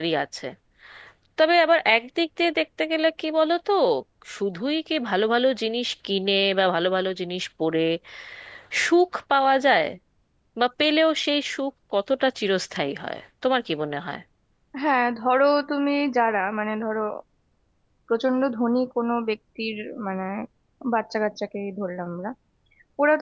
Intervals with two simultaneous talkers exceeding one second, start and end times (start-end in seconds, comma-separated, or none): none